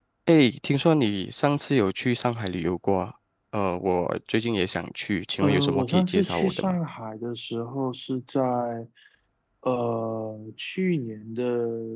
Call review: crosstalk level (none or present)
present